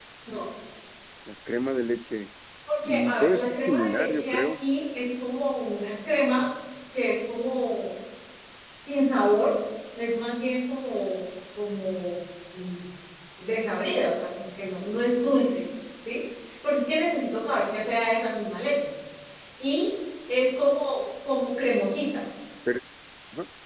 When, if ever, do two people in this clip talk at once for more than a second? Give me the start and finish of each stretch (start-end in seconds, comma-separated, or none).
2.9-4.6